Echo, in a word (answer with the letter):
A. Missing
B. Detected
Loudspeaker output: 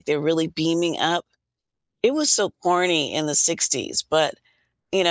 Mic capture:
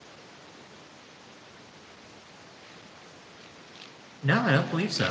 A